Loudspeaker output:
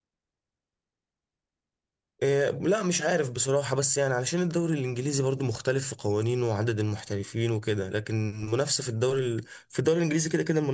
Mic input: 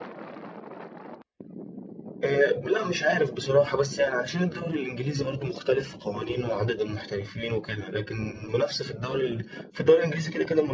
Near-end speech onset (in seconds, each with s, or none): none